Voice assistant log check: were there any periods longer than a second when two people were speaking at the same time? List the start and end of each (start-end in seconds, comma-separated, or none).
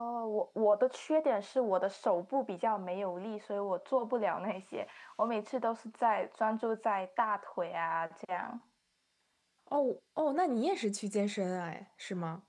none